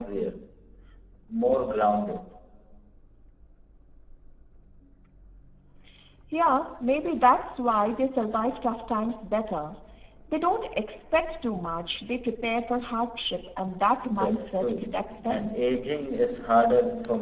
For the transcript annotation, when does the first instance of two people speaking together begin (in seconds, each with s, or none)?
14.1 s